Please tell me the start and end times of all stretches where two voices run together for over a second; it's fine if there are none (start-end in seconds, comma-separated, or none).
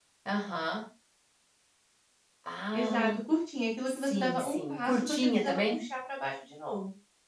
3.9-5.8